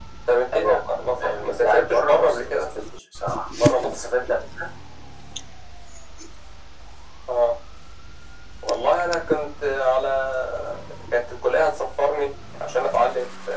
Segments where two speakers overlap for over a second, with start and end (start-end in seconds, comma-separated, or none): 1.2-2.7